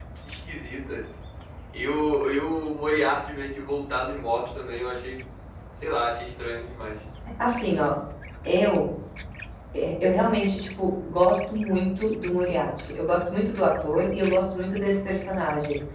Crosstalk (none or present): none